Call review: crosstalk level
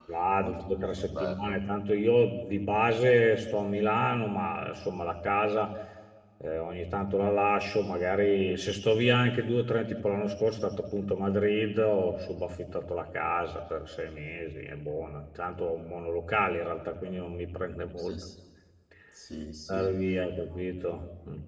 present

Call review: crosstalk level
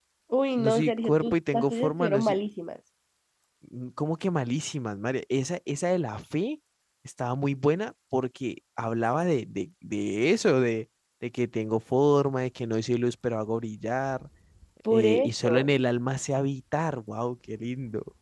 present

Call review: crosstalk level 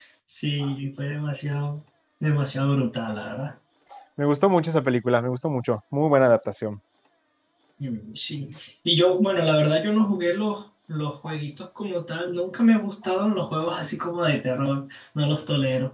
none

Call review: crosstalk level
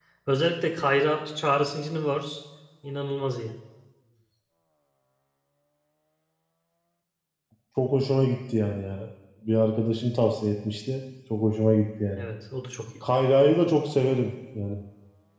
none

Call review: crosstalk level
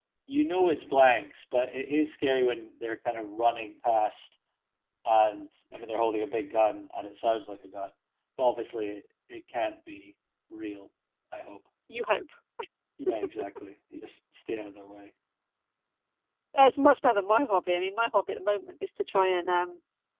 none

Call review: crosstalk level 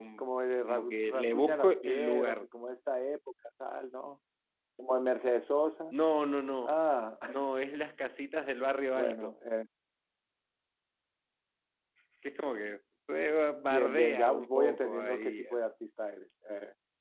present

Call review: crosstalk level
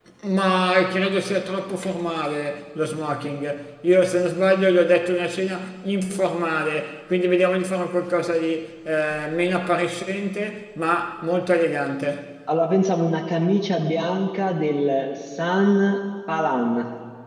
none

